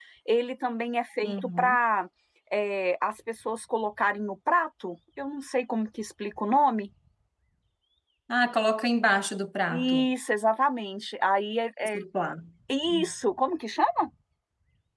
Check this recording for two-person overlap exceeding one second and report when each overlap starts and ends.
none

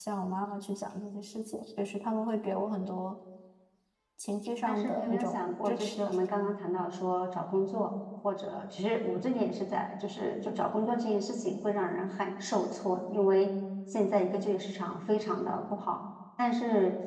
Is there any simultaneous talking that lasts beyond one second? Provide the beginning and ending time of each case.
4.7-6.0

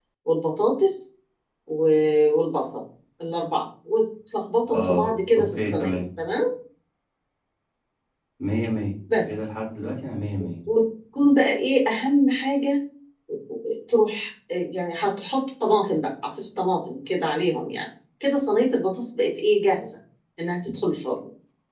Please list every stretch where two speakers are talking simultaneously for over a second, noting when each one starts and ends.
4.7-6.0

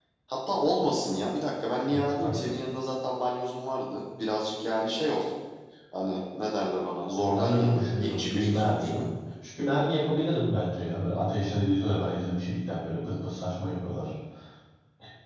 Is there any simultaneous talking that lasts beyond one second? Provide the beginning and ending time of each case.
7.2-9.0

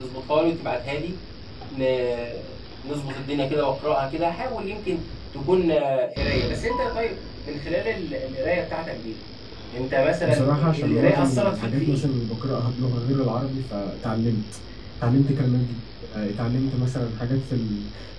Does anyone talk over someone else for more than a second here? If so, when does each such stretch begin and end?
10.2-12.0

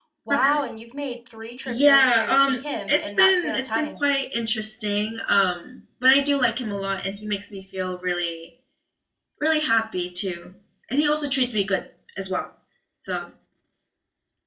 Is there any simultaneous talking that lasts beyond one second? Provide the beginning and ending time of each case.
1.7-4.0

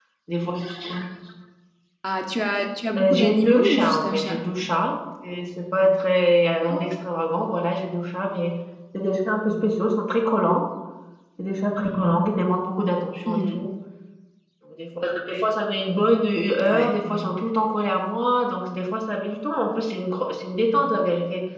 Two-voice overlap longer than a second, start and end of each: 3.0-4.4

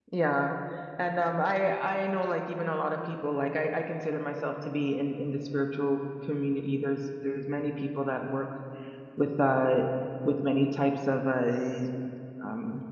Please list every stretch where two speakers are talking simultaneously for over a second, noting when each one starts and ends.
none

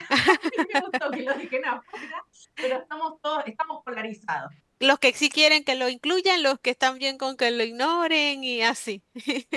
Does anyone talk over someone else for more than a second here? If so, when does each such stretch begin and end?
none

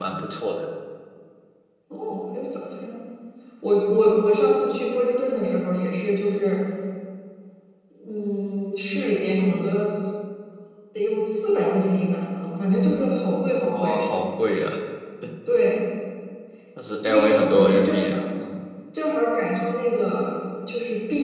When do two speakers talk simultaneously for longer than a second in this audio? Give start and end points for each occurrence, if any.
17.0-18.2

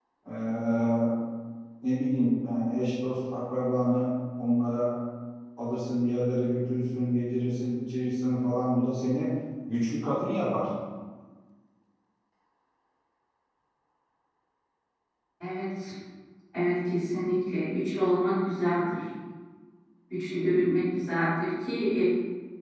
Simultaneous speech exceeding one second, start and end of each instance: none

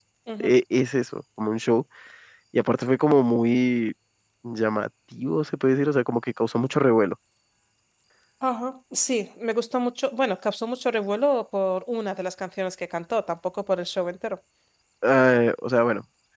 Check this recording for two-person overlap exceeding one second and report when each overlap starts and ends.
none

